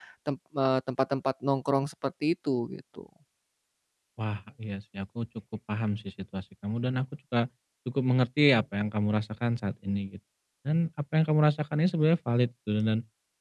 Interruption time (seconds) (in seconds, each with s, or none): none